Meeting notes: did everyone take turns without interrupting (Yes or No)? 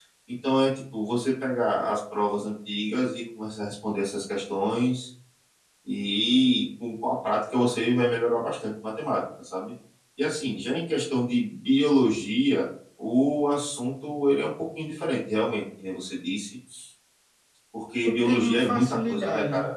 No